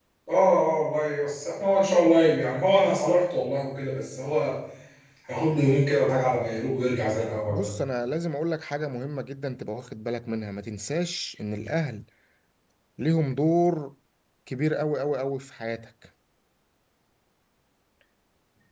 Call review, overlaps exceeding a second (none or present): none